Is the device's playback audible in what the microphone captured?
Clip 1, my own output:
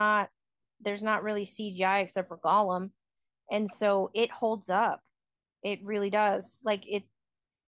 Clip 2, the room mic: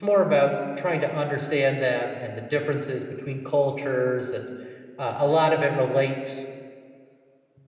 No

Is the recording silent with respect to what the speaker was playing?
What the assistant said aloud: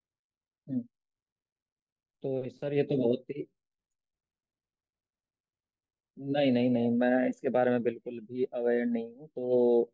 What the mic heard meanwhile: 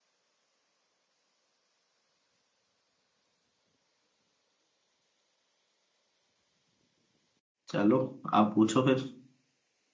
Yes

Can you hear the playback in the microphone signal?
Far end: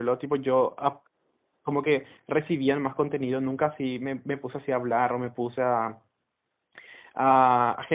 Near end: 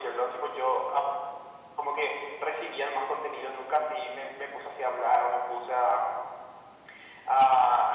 Yes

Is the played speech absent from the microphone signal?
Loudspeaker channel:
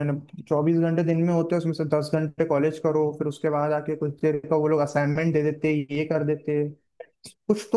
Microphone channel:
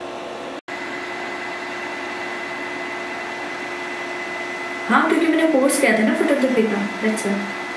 Yes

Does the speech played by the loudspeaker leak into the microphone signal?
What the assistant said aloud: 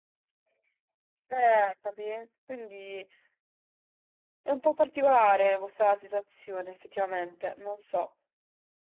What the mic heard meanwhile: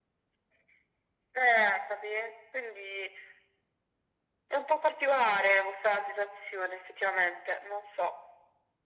Yes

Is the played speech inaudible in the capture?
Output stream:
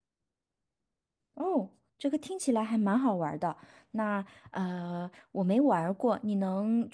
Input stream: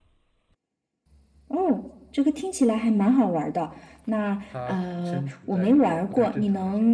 No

